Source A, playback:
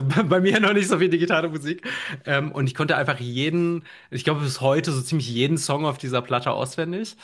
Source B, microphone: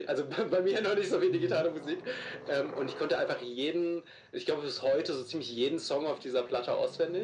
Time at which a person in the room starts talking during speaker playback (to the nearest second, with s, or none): 1 s